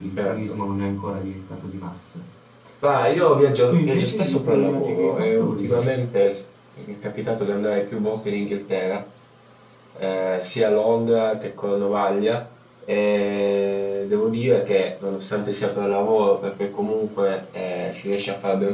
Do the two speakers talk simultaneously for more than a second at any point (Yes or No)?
Yes